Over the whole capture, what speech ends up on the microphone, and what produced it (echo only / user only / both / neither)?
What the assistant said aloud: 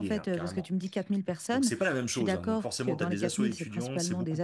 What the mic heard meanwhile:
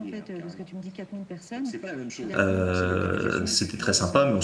both